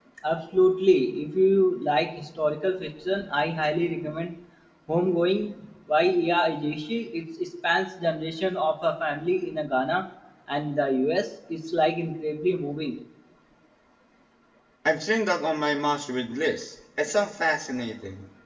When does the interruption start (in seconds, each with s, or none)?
none